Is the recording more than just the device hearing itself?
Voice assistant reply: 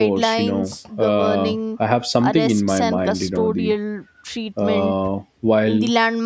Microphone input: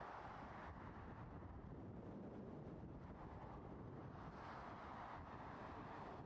No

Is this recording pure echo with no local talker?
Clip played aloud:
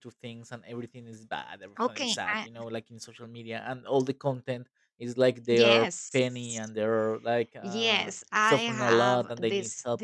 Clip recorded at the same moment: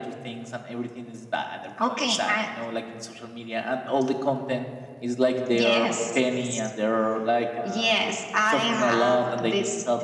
Yes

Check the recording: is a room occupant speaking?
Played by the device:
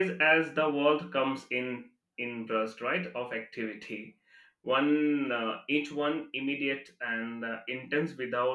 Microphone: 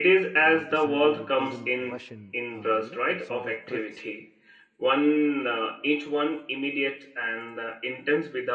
Yes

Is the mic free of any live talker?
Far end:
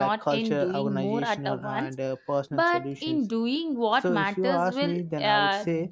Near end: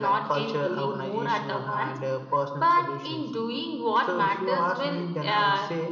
Yes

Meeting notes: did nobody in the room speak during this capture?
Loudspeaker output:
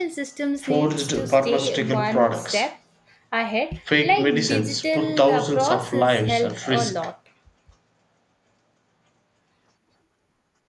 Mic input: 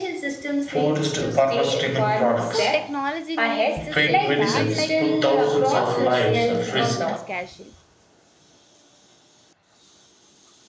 No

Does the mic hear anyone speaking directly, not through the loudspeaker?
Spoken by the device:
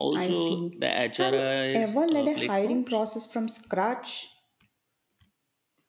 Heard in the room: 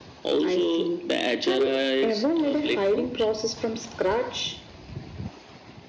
No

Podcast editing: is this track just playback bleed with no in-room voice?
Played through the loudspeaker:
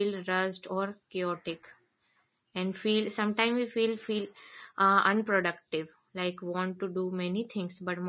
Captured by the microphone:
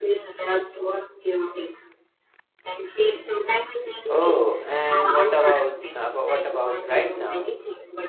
No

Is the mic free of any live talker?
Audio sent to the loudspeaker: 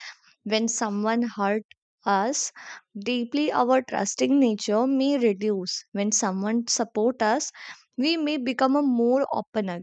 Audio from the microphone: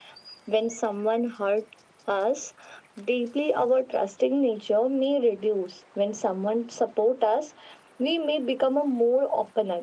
Yes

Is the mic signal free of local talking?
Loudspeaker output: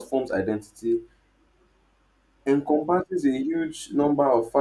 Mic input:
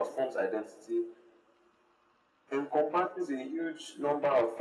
Yes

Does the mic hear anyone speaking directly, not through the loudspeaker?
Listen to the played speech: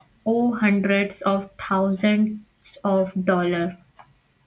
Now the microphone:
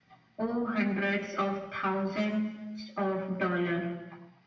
No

